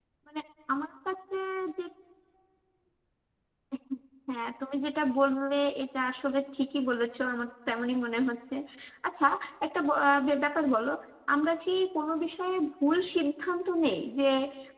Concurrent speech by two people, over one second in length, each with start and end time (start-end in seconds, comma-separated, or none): none